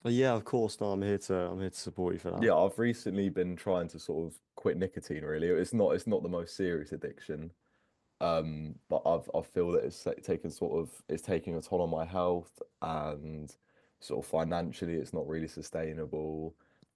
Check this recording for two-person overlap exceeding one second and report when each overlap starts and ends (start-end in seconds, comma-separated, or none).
none